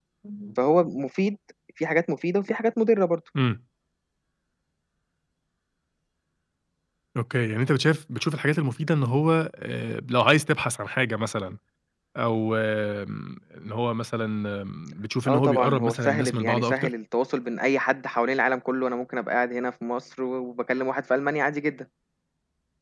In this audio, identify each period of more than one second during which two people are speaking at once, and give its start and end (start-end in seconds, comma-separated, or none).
15.2-16.9